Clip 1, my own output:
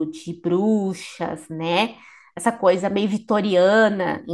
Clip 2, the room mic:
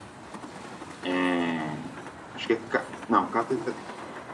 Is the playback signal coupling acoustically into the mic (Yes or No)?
No